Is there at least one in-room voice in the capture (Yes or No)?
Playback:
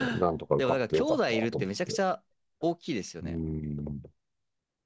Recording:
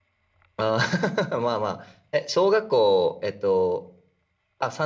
Yes